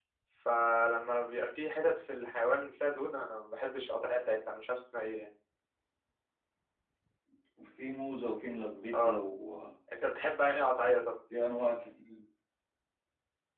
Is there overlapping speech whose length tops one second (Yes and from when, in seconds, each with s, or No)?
No